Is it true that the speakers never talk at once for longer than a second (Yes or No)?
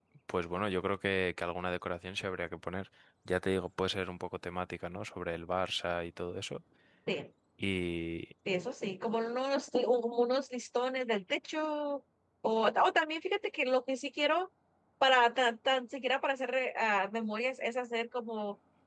Yes